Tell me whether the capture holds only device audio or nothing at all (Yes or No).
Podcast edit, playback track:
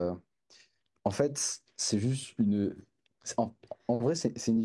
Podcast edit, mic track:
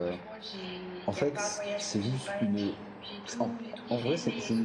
No